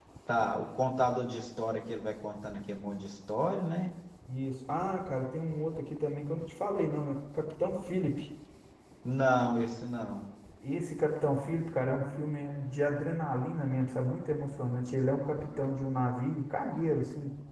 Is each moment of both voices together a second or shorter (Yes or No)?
Yes